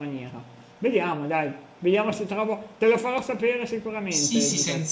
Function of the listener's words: taking over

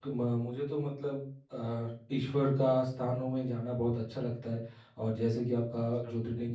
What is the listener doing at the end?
listening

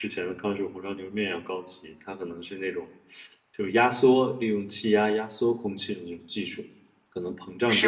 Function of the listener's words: listening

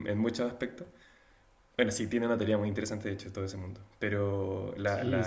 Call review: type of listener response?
taking over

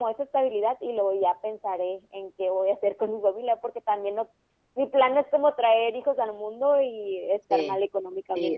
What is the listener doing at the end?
taking over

